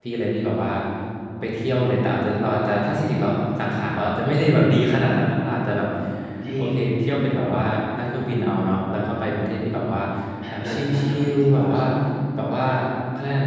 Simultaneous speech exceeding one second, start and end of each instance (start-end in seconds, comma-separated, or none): 10.6-11.8